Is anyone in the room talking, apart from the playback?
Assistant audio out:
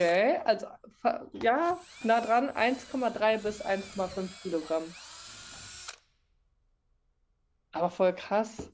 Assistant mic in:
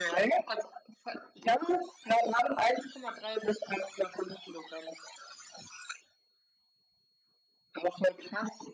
No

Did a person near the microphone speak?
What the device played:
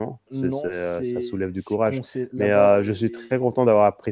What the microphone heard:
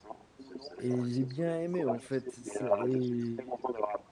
Yes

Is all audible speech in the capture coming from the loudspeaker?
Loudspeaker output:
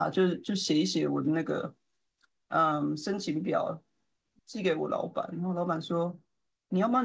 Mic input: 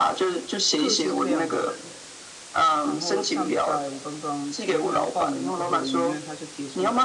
No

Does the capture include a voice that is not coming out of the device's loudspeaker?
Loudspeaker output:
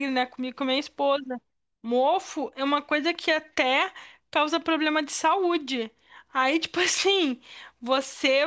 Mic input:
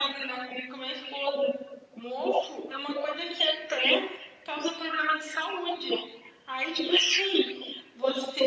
No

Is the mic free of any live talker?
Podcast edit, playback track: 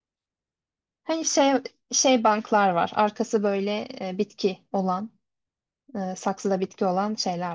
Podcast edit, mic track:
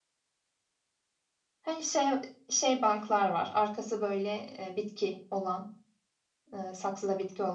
Yes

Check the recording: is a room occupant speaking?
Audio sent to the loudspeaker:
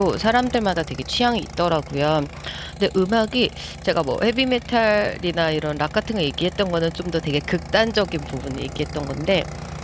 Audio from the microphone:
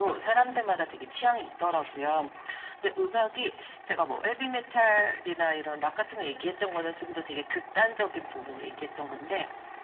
No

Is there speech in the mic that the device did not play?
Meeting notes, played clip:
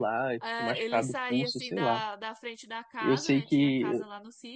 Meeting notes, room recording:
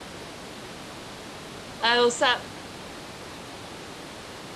Yes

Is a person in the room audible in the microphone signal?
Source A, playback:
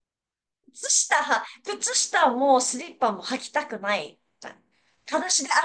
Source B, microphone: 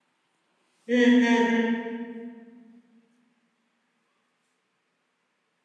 Yes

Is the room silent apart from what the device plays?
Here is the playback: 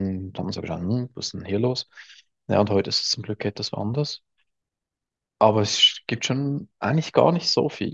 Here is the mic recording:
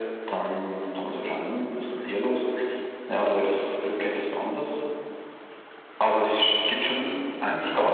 Yes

